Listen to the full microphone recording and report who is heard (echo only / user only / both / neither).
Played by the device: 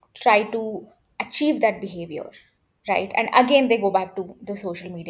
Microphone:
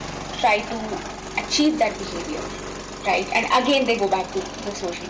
echo only